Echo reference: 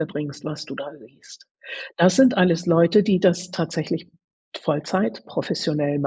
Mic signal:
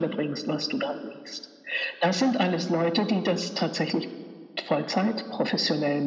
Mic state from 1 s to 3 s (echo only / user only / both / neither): echo only